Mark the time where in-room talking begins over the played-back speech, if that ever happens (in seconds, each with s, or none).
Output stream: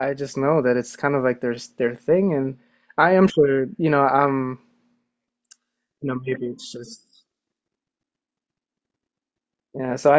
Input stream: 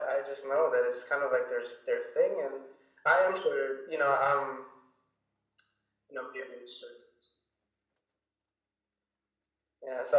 none